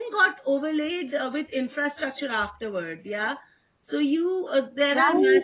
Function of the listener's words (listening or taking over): listening